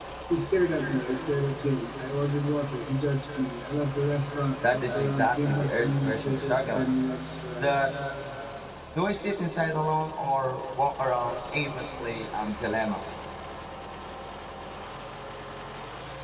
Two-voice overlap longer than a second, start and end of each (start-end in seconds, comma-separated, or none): 4.7-6.8